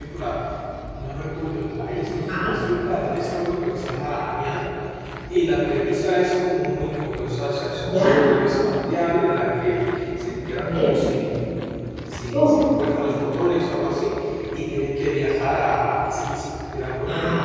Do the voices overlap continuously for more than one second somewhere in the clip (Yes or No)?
No